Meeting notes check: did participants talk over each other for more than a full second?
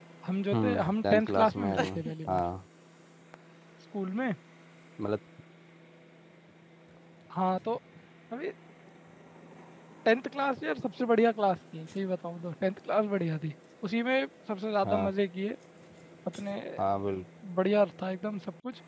Yes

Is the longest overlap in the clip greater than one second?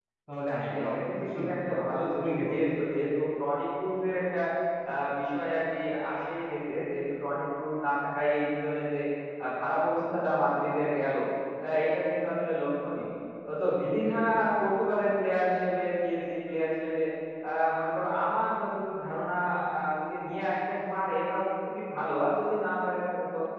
Yes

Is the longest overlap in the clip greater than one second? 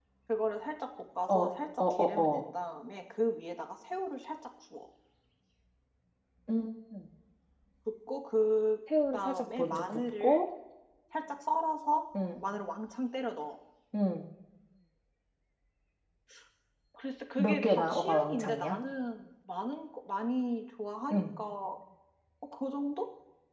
Yes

